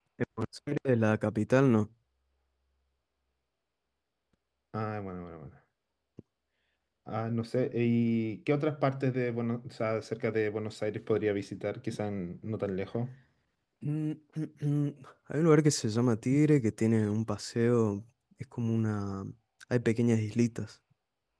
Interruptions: none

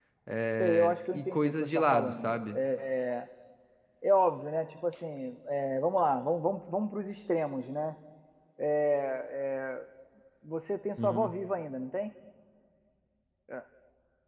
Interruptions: present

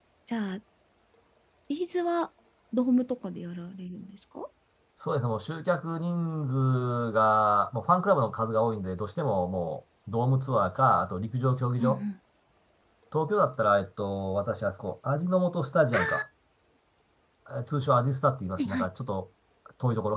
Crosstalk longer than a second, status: none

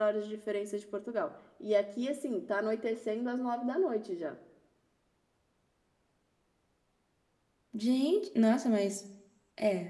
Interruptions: none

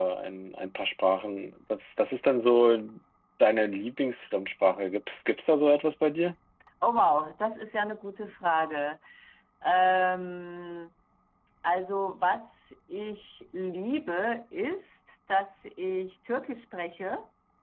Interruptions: none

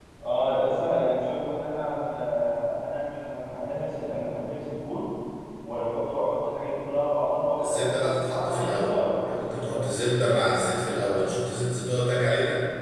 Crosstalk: present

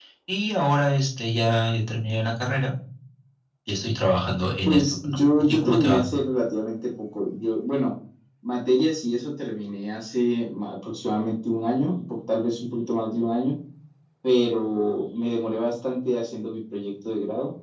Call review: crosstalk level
present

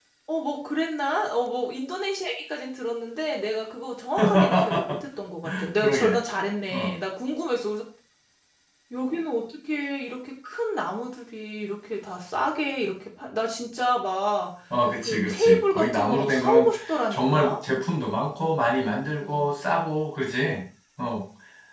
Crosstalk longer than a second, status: present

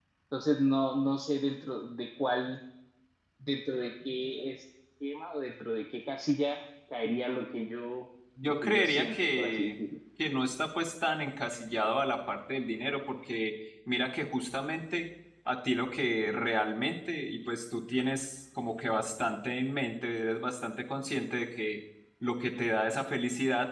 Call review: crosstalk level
present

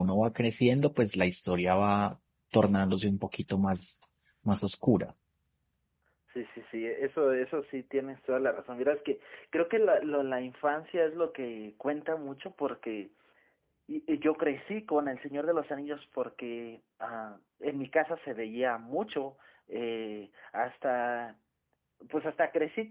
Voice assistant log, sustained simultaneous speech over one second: none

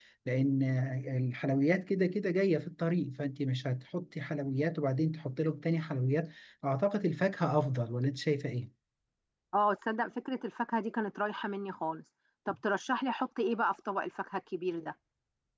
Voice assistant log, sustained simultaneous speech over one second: none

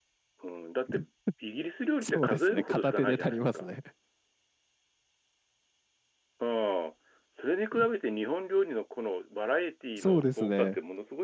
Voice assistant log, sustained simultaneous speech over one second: present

